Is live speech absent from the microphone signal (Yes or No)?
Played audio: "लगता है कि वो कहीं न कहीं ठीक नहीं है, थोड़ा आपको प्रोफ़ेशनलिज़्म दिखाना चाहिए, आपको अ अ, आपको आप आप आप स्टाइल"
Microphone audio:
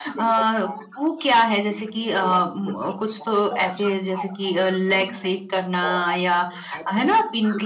No